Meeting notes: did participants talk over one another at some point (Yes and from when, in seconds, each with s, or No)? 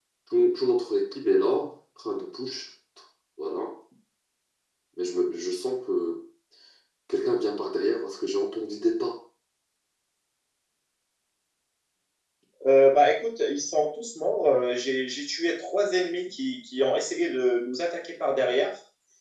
No